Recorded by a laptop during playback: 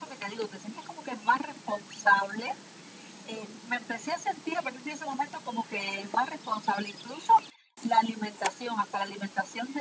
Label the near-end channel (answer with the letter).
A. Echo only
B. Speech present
A